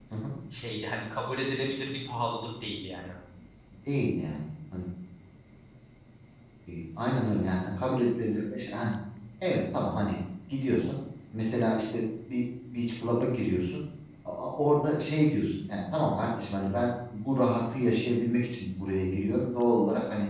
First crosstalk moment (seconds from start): none

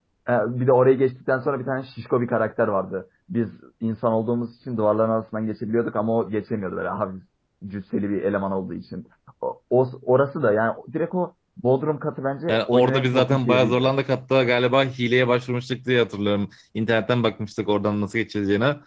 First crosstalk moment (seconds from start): 12.5 s

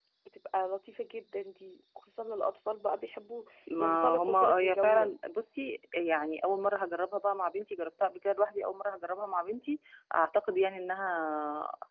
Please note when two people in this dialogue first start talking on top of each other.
3.7 s

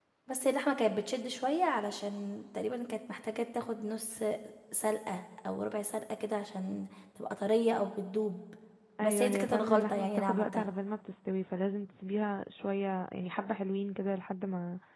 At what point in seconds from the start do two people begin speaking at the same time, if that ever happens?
9.0 s

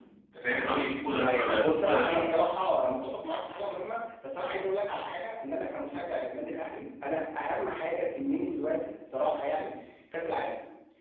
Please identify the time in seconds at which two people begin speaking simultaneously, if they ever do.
1.2 s

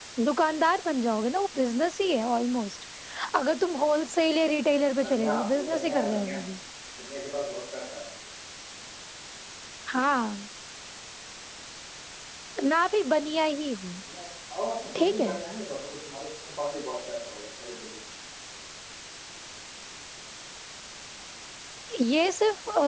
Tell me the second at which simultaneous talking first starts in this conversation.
5.0 s

